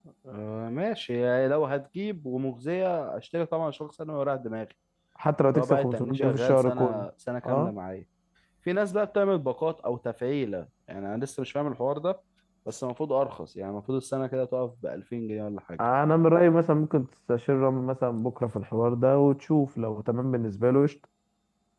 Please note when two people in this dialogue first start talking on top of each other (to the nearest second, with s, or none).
5 s